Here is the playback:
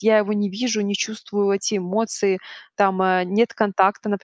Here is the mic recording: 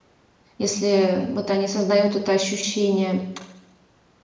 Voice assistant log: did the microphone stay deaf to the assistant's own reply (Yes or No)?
Yes